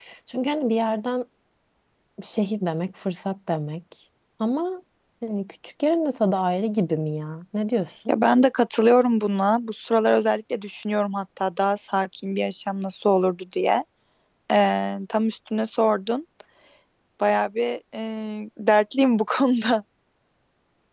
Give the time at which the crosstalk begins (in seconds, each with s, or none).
none